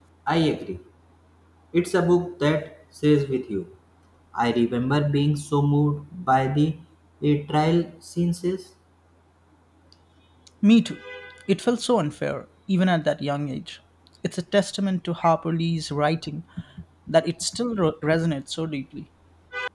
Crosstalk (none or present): none